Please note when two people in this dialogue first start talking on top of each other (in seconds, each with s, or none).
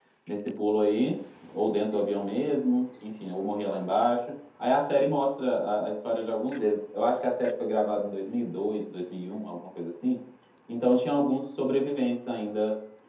none